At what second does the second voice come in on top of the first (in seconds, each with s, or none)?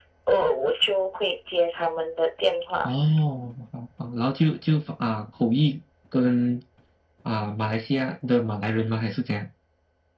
none